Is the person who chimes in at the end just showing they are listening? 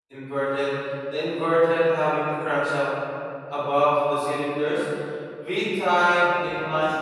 No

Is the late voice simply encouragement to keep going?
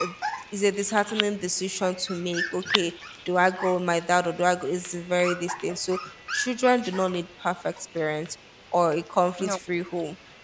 Yes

